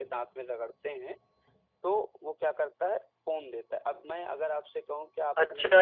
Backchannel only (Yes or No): No